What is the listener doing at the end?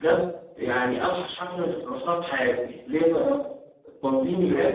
listening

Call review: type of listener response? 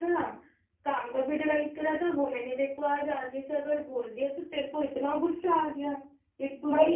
taking over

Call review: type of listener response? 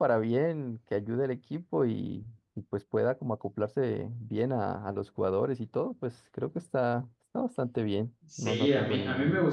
taking over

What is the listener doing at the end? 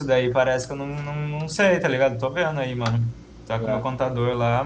listening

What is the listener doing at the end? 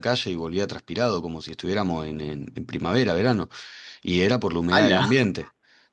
listening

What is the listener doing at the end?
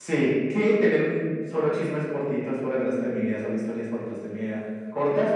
listening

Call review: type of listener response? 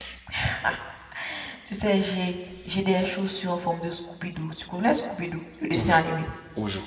taking over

